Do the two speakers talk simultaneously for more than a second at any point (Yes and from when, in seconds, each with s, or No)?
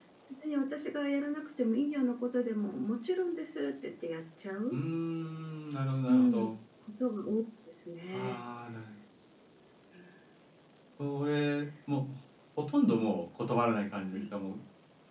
No